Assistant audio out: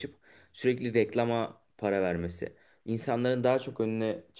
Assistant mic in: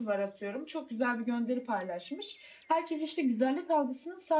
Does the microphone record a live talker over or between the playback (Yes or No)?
Yes